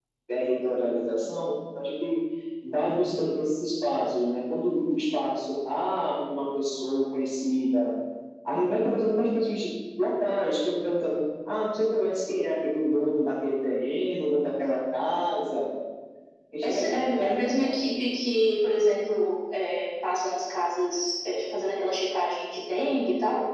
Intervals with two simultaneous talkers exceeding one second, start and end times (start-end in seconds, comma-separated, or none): 16.6-17.9